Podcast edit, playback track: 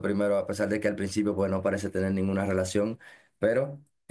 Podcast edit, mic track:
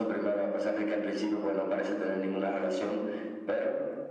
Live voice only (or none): none